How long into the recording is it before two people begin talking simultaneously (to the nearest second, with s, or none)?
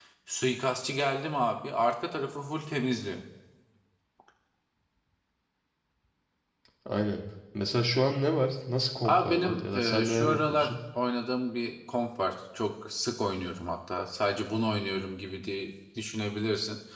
9 s